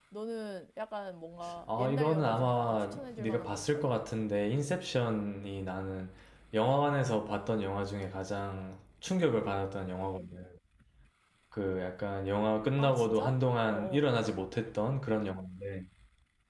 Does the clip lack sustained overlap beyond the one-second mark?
No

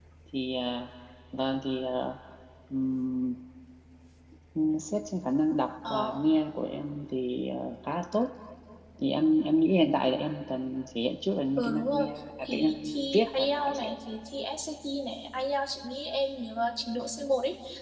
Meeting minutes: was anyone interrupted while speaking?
Yes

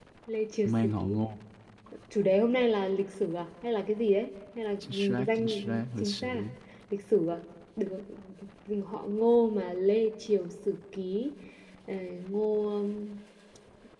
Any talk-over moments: Yes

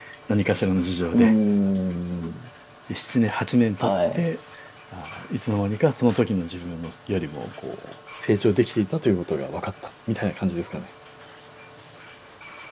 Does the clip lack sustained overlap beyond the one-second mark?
Yes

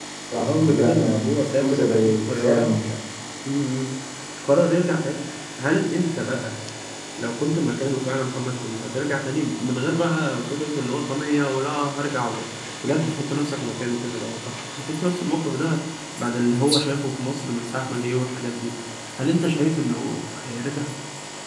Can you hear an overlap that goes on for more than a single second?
Yes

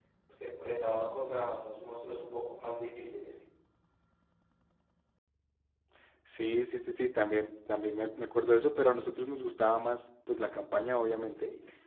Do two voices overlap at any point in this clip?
No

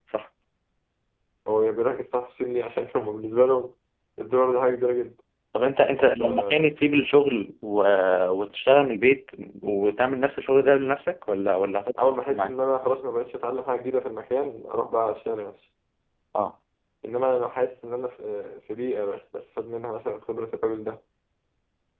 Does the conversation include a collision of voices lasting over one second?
No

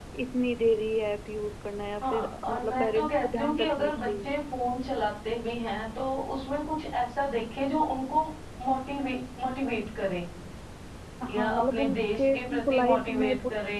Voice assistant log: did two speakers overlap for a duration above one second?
Yes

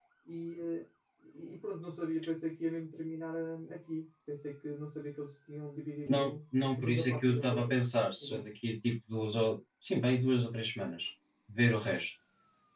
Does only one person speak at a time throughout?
No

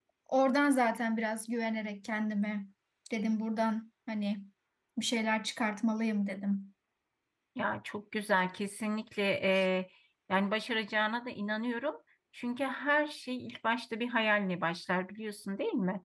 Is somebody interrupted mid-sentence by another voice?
No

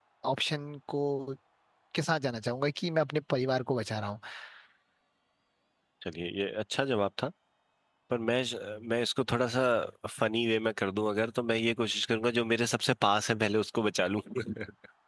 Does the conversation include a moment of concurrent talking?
No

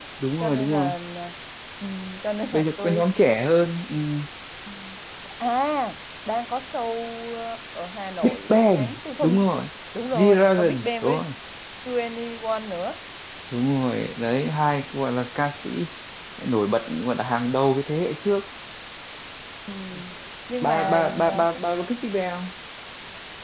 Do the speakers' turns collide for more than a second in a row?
Yes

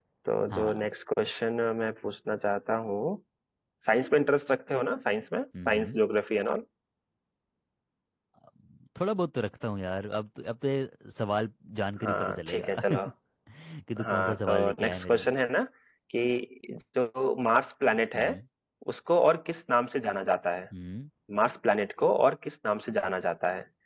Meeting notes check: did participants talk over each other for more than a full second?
Yes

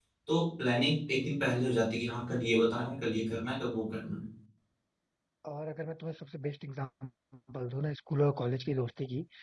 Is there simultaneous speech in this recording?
No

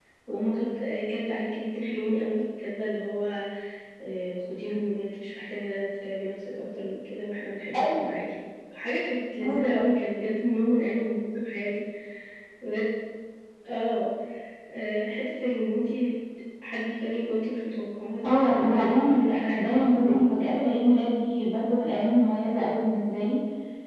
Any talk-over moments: Yes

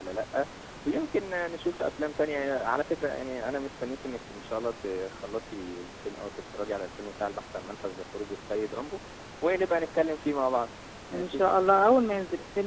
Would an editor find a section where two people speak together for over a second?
No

